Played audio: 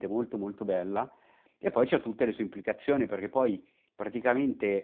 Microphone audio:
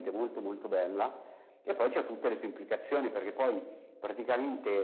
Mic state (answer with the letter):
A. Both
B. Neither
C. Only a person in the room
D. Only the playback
D